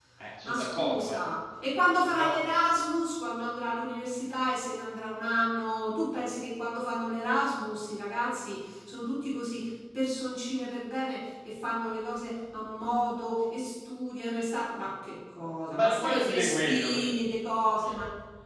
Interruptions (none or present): present